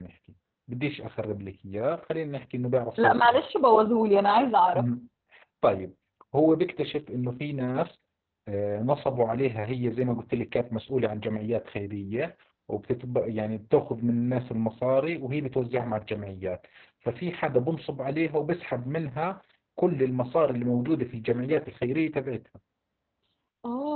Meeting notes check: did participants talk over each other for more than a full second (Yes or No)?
No